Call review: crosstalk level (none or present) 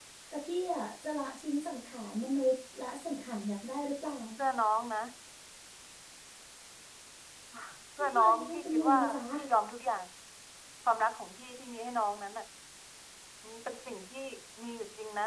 present